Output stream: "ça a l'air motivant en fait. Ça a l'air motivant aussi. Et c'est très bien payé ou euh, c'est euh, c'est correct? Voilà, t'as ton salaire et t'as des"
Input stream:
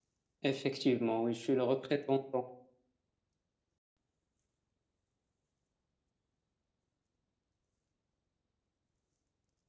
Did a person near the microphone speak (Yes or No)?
Yes